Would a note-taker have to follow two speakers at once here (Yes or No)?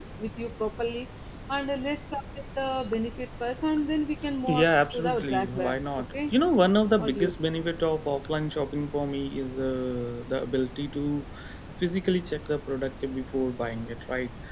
Yes